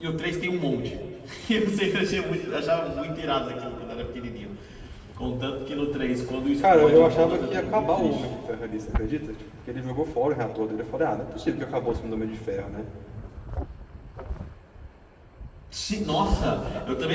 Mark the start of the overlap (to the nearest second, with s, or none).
7 s